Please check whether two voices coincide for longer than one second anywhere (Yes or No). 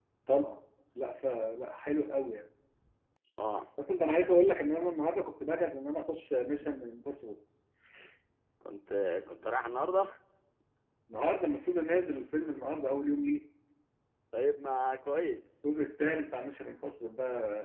No